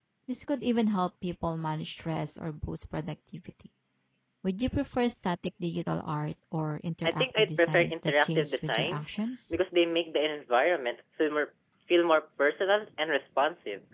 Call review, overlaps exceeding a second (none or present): present